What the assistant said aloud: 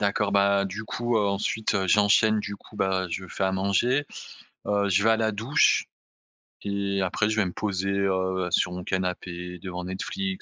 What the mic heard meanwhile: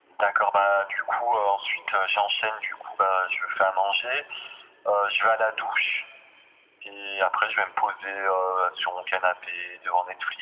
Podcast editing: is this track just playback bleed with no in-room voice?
Yes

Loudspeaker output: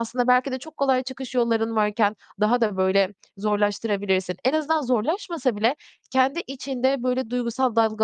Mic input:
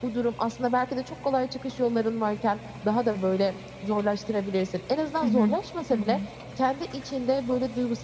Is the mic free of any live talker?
No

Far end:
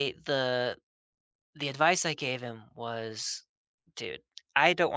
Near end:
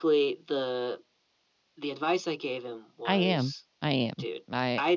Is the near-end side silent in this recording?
No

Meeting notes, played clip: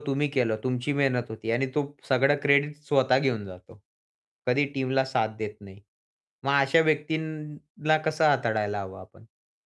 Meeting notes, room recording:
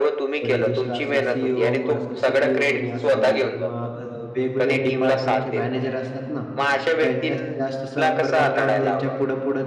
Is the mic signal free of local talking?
No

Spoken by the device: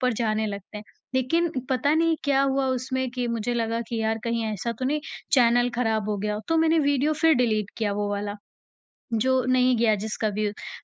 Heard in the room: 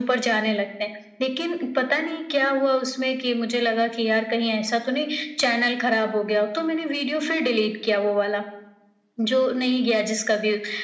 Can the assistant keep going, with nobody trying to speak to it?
Yes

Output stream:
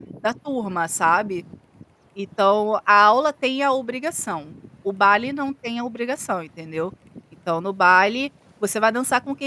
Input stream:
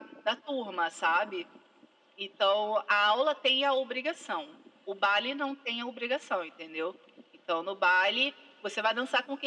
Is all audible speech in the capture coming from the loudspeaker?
Yes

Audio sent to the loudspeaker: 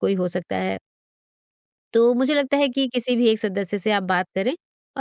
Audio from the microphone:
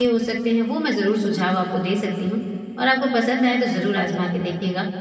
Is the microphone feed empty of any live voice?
No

